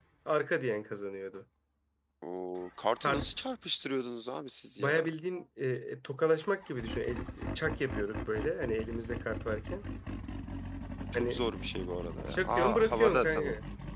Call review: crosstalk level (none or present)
present